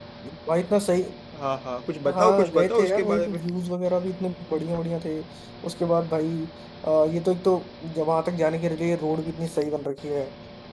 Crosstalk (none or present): present